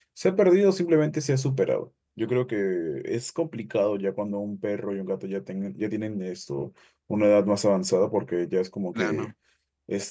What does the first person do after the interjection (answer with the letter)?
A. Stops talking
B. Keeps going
B